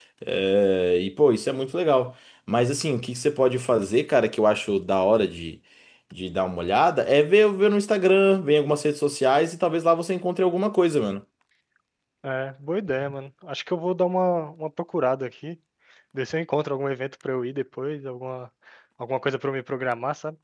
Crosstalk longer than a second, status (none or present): none